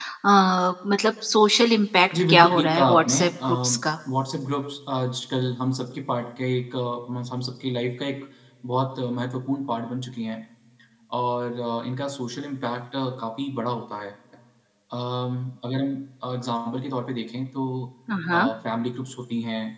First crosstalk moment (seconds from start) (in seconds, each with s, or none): 2.1 s